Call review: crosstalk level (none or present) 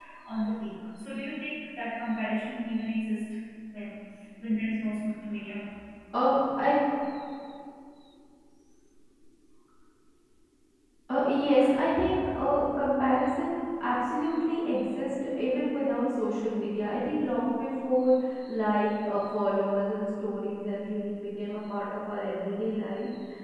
none